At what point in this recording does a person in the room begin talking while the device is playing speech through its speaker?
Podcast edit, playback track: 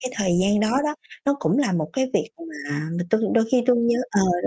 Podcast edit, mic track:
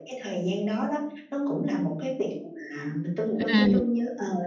3 s

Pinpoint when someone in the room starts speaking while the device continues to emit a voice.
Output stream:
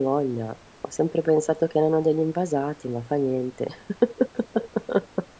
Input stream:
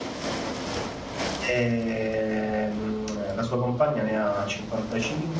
1 s

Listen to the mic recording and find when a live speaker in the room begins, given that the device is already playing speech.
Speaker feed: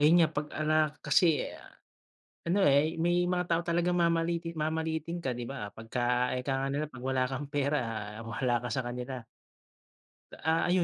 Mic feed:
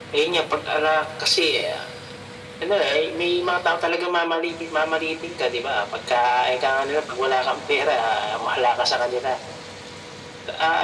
none

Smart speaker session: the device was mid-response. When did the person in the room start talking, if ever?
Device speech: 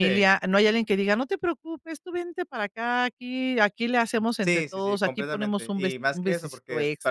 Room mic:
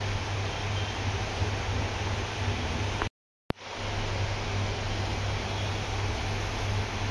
none

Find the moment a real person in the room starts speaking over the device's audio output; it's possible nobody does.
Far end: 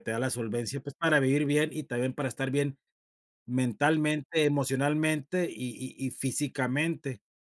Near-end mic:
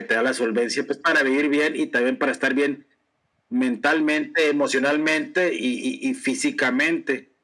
none

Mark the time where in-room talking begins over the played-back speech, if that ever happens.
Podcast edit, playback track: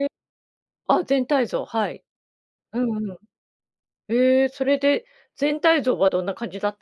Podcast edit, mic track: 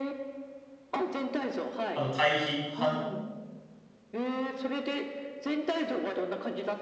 2 s

